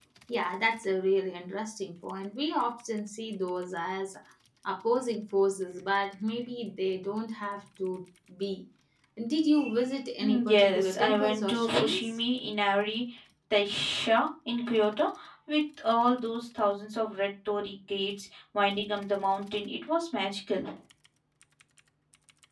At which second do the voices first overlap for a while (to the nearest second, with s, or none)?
10 s